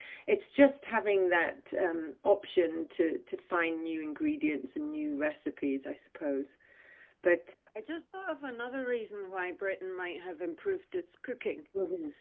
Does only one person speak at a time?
Yes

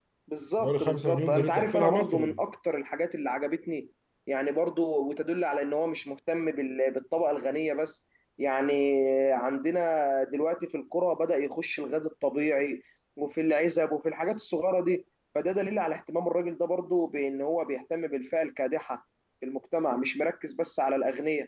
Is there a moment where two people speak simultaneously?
Yes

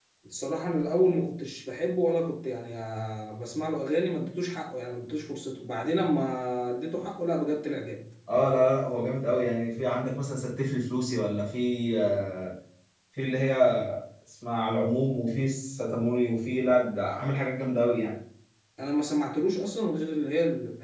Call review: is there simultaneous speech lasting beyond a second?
No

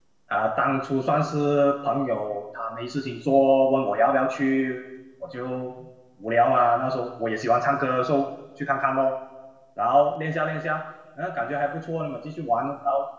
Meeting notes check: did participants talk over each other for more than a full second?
No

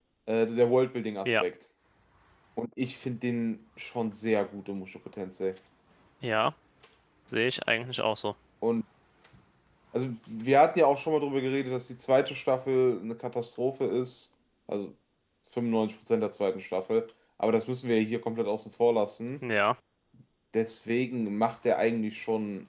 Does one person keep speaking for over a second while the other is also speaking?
No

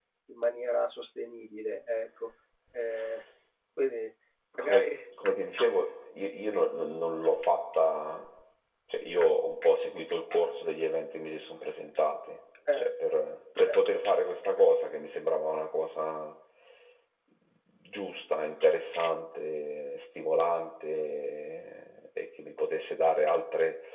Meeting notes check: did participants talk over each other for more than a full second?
No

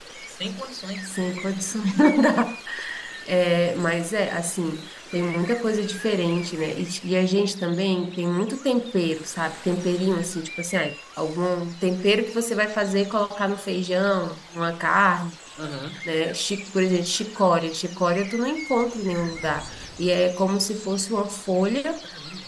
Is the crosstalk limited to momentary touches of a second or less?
Yes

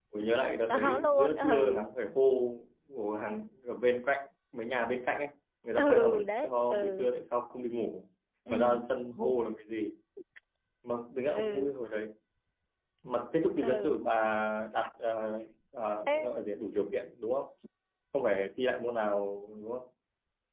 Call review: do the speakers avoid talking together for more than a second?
No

